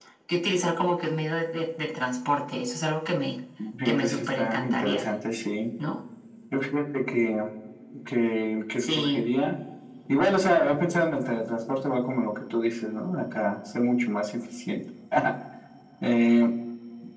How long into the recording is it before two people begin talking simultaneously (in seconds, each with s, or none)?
3.9 s